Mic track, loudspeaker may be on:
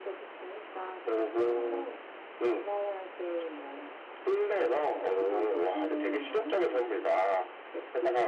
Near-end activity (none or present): none